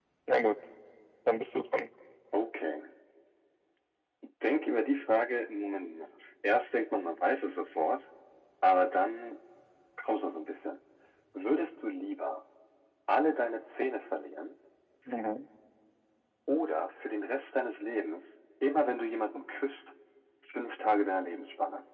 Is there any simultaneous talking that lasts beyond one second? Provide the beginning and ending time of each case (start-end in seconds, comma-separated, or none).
none